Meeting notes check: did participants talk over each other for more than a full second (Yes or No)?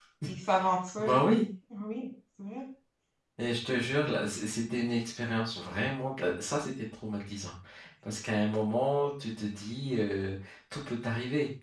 No